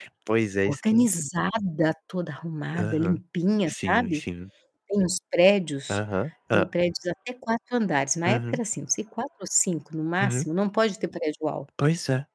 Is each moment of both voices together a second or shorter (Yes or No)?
Yes